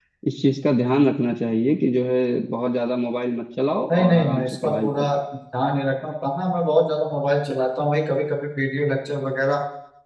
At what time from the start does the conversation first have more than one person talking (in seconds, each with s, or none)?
3.9 s